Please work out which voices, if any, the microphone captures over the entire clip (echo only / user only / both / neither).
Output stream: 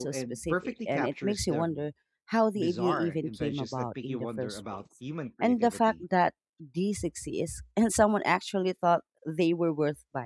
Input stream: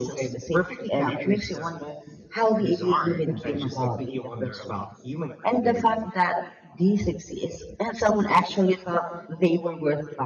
echo only